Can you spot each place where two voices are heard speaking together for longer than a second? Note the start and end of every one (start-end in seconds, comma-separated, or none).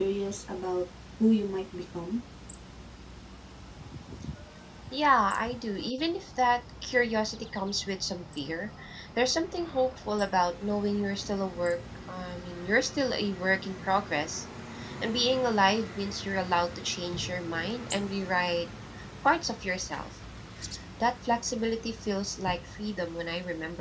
none